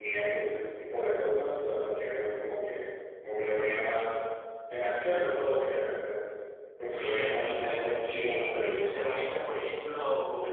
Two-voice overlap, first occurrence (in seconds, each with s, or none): 6.9 s